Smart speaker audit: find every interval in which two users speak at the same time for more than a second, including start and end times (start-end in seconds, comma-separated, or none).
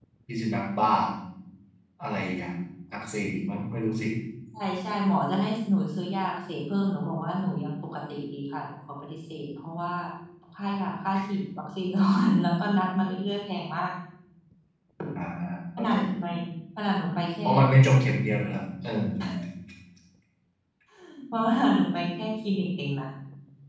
none